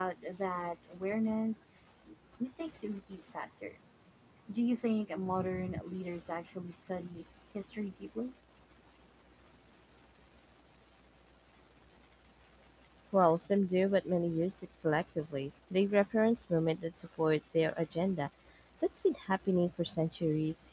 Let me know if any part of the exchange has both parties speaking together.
No

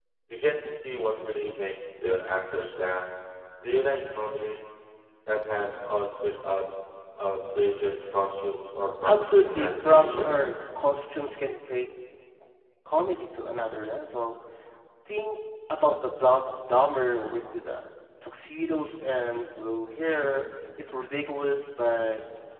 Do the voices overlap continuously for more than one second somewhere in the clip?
Yes, from 9.0 s

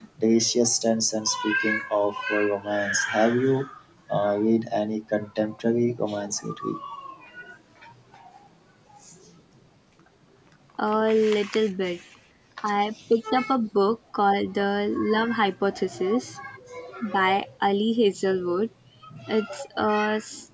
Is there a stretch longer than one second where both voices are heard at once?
No

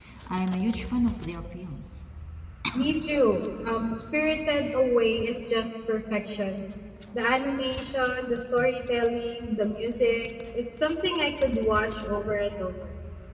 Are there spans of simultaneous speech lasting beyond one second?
No

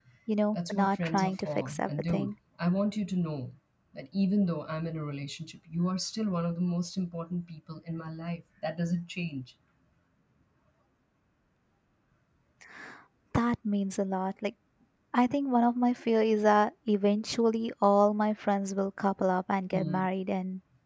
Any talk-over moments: Yes, from 0.5 s

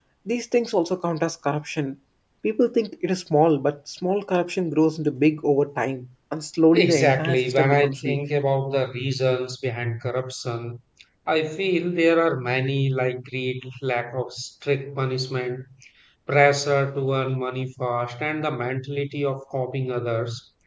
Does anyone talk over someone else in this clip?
Yes, from 6.7 s

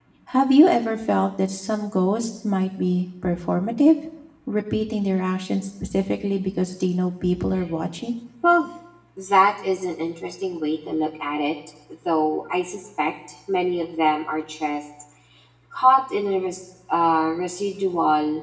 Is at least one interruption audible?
No

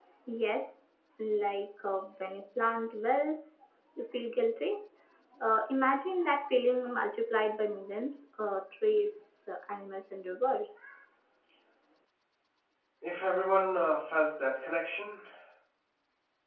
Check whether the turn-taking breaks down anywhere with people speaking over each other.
No

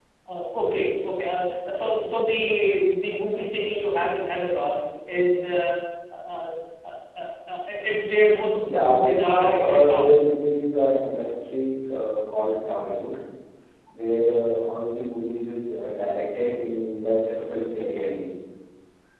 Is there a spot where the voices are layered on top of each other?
Yes, from 8.7 s

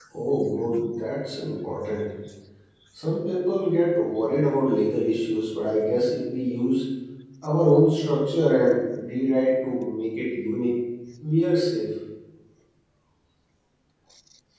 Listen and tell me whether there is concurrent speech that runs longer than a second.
No

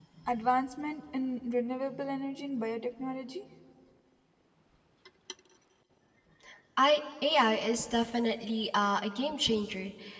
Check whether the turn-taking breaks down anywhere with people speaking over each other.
No

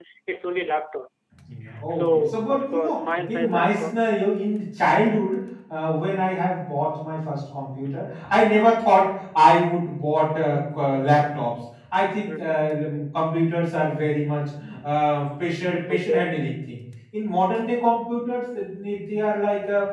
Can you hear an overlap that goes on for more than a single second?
Yes, from 2.0 s

